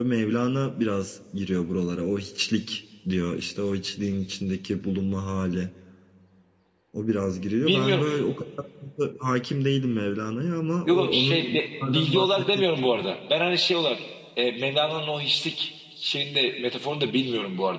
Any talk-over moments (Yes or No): Yes